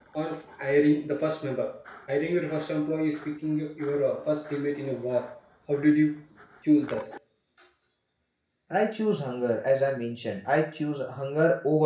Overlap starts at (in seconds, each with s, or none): none